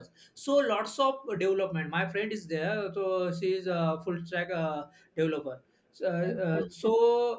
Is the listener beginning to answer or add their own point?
No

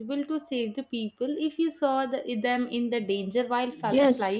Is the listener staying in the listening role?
No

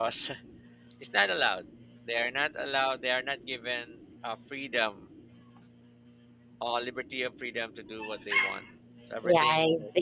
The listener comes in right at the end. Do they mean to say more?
Yes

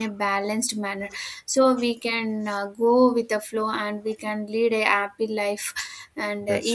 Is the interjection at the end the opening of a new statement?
No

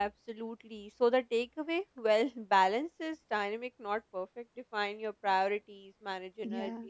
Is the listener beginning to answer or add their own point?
No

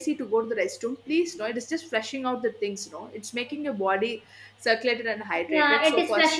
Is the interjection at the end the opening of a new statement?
Yes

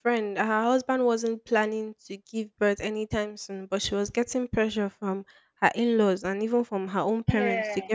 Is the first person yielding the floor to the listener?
No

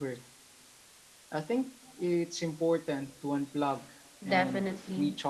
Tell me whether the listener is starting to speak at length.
Yes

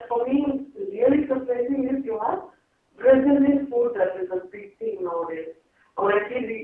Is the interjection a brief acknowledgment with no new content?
Yes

